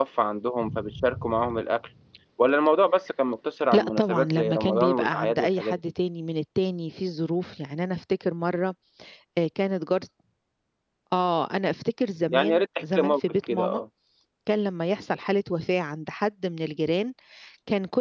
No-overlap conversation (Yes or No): No